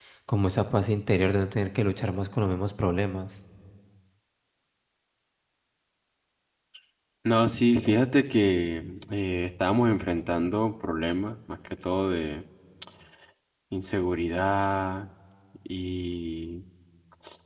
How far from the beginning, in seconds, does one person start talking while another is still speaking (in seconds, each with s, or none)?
none